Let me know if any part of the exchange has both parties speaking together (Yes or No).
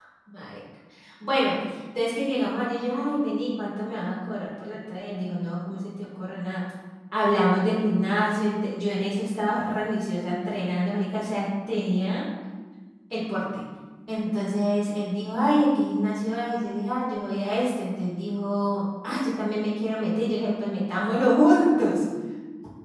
No